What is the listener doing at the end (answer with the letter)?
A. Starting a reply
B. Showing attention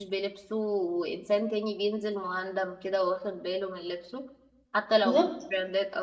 B